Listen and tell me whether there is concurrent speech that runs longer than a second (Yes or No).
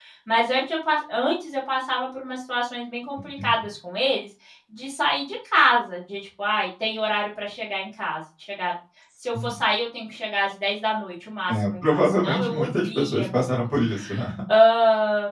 Yes